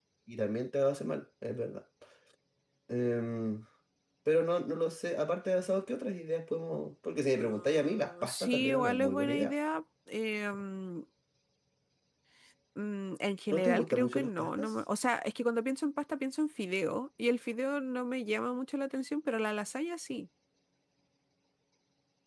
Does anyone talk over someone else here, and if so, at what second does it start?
7.4 s

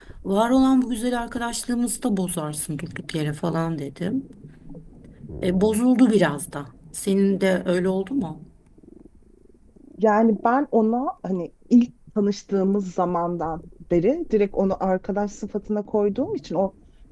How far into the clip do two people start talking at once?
none

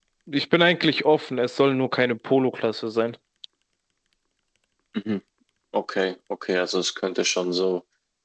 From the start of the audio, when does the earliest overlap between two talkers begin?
none

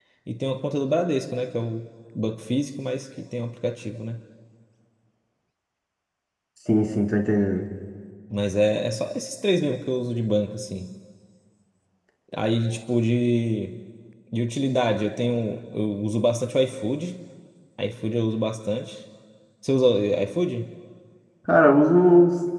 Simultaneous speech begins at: none

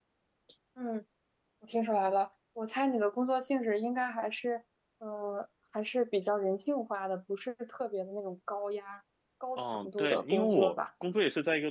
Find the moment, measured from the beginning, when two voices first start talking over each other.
9.6 s

